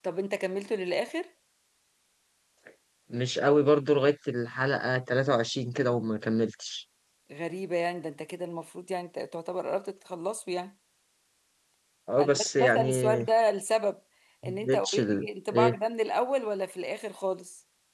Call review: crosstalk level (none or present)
present